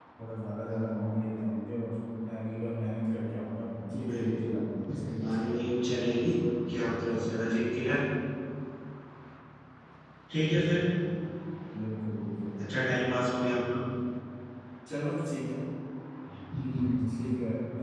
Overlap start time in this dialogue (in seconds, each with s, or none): 3.9 s